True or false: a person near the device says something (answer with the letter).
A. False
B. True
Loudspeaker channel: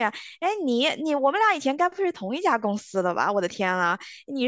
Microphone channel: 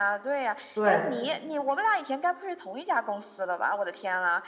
B